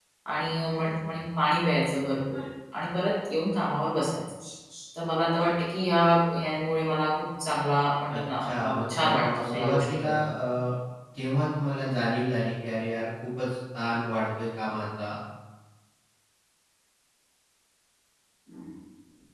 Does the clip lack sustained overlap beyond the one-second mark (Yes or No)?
No